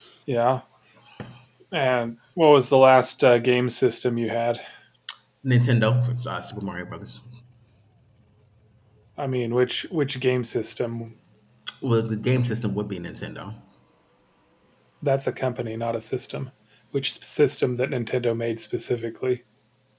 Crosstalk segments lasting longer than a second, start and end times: none

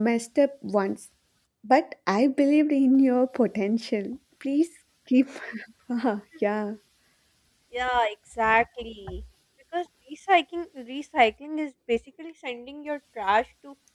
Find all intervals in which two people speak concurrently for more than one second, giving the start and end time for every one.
none

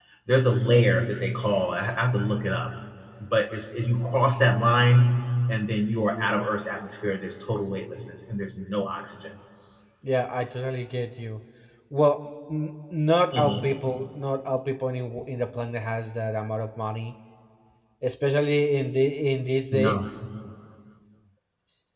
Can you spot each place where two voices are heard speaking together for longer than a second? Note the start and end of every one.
none

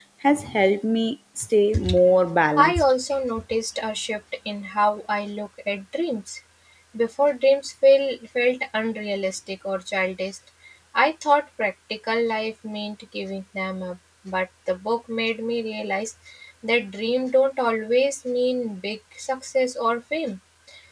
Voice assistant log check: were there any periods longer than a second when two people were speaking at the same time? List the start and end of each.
none

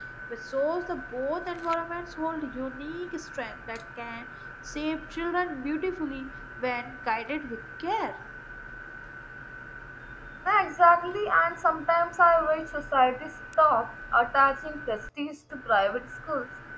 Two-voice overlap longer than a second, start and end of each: none

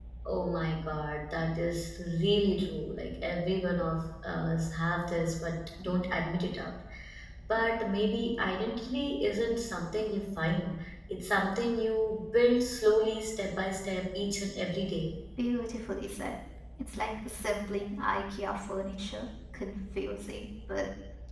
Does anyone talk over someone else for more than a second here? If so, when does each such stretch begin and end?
none

